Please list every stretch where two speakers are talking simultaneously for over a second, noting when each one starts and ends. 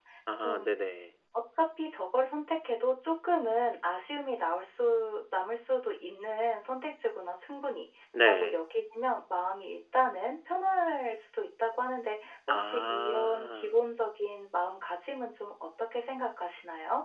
12.5-13.8

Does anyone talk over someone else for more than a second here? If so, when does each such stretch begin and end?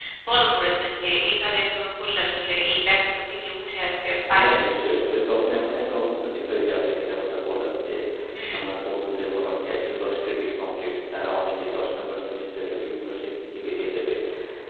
none

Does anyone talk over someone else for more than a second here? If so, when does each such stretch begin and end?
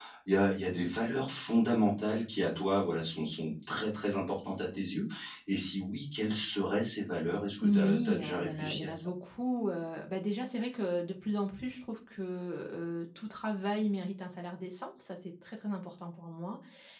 7.6-9.1

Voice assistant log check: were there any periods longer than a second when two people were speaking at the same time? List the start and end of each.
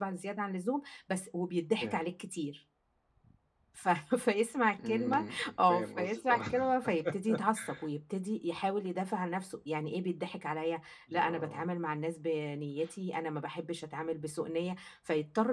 4.9-6.6

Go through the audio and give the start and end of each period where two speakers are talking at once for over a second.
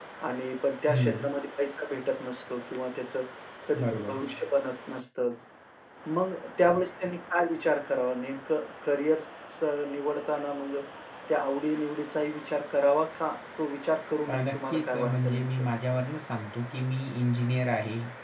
14.3-15.5

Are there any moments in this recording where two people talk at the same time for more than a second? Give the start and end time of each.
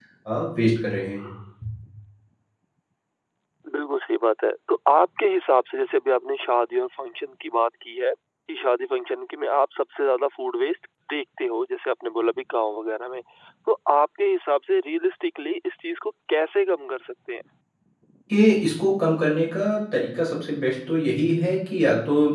none

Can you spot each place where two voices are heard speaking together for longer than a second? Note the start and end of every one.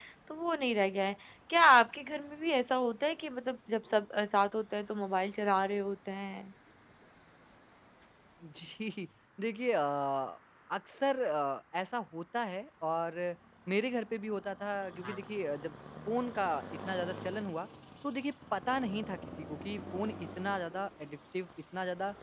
none

